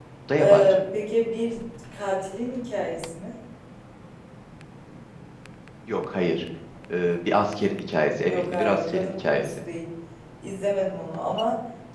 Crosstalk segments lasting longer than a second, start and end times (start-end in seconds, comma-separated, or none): 8.3-9.5